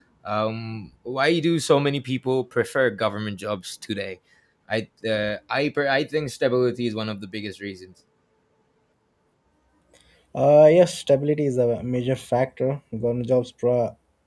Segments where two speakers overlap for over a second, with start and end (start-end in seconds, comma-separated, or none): none